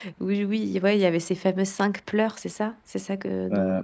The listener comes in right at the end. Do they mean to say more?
Yes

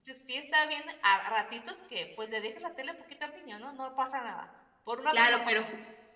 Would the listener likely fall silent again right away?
No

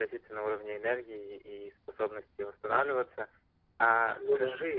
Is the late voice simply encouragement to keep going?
Yes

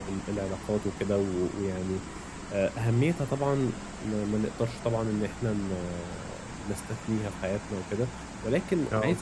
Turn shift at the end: No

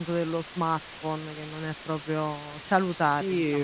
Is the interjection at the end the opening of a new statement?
Yes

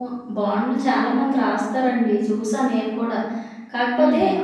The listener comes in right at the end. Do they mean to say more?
No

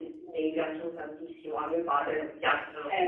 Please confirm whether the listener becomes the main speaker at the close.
Yes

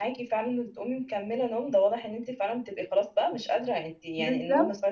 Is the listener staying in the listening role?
Yes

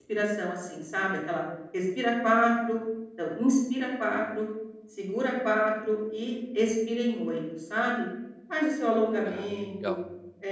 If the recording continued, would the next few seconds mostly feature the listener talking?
No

